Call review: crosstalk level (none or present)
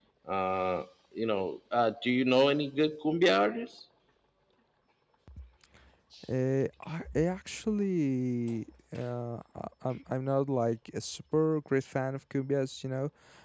none